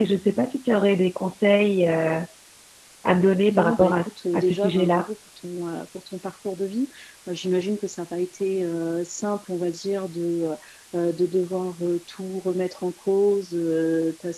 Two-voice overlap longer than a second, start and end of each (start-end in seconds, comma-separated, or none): 3.5-5.1